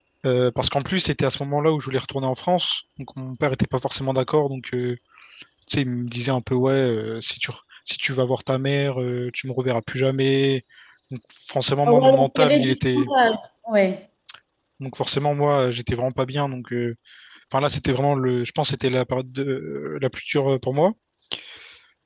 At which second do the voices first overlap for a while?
11.9 s

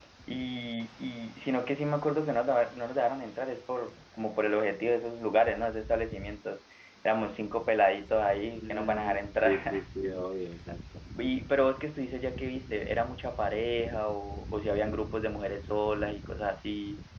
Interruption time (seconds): 8.6 s

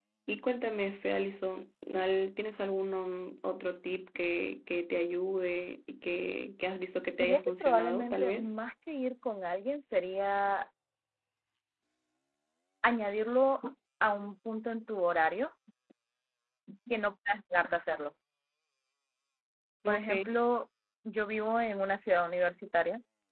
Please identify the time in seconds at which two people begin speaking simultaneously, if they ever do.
7.2 s

